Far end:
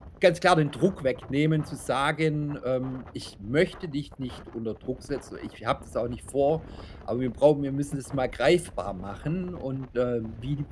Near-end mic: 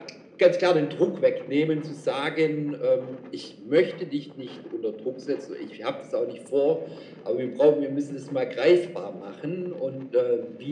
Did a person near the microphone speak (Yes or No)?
No